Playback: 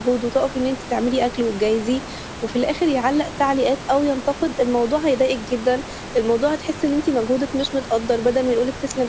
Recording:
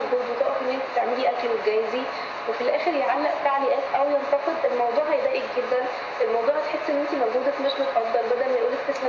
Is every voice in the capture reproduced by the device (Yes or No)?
Yes